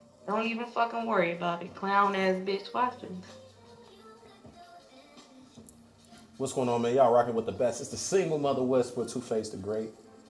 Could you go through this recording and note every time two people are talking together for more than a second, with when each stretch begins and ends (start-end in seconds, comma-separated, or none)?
none